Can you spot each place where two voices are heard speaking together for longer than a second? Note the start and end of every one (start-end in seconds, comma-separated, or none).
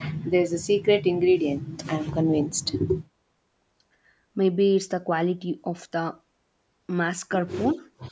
none